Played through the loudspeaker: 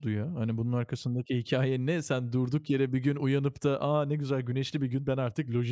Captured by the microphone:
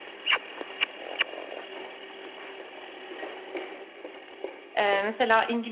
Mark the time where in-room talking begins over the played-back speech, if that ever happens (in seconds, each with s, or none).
4.8 s